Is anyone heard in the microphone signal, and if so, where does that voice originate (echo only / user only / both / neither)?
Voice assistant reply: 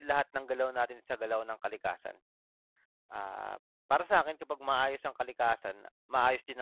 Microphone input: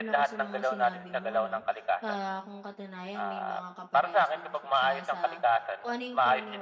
both